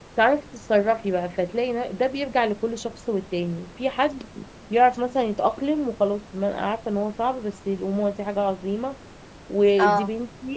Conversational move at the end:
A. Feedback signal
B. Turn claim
A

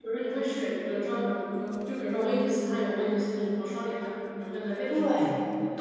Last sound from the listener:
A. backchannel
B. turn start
B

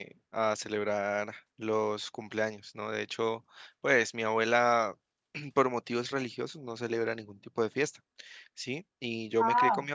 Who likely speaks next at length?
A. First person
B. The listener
A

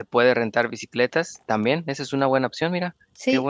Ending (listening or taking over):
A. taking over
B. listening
A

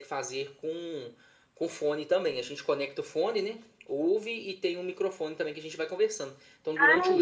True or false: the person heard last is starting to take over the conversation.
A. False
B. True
A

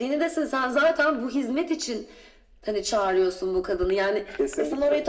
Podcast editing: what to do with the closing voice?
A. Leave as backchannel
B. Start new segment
A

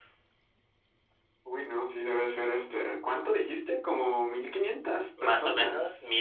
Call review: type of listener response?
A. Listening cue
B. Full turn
B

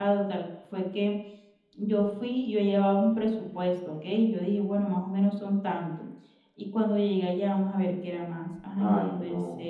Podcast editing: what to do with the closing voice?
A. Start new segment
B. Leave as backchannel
A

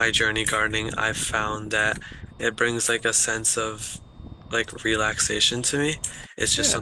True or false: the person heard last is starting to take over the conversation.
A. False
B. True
A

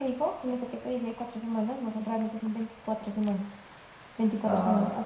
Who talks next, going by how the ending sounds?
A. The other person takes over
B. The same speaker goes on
B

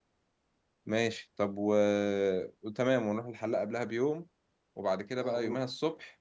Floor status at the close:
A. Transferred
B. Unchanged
B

